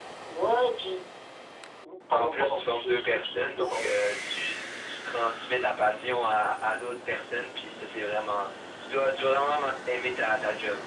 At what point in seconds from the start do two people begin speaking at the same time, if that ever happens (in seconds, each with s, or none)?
2.1 s